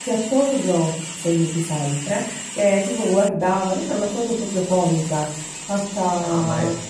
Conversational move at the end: taking over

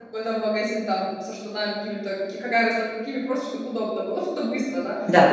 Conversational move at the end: listening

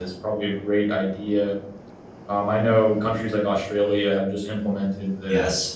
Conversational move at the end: listening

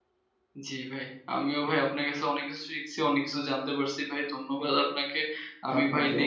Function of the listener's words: listening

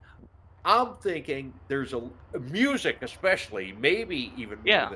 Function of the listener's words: listening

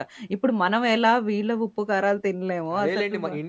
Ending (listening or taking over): taking over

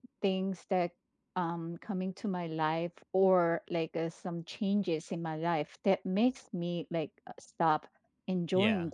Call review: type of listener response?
listening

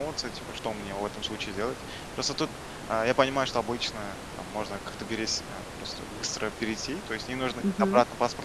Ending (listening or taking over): listening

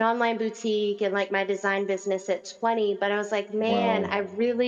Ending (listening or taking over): listening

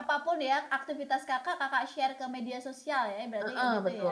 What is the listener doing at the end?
taking over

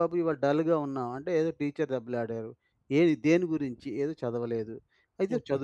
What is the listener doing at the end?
listening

